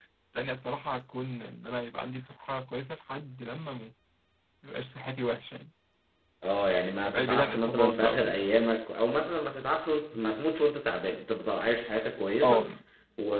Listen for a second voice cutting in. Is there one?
Yes, from 7.0 s

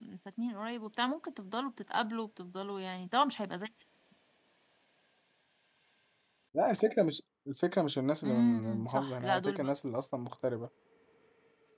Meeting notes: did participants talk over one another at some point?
Yes, from 8.2 s

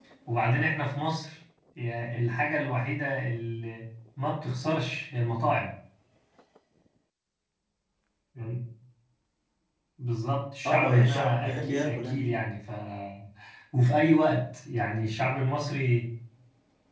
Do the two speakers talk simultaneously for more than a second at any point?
Yes, from 10.7 s

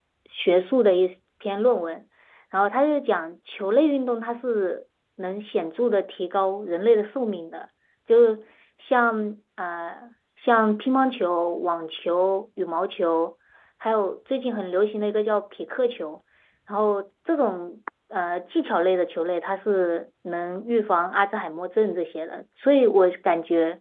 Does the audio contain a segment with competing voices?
No

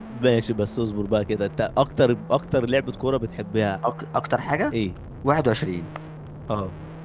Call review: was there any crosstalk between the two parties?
No

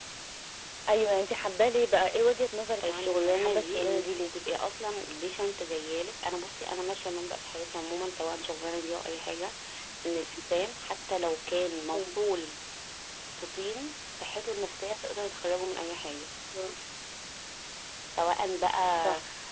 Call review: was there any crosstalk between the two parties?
Yes, from 2.8 s

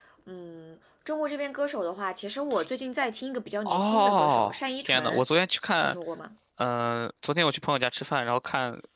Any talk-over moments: Yes, from 3.6 s

